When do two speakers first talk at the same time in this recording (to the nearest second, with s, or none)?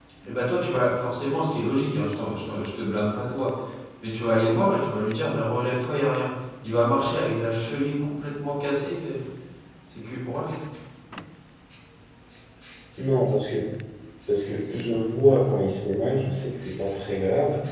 none